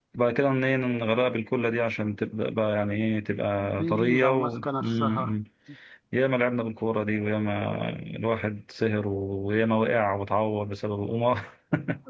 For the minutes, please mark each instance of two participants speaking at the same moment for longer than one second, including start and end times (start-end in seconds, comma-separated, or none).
3.8-5.3